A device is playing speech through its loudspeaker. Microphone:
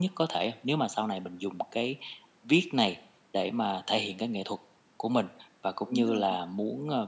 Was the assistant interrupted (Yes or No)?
Yes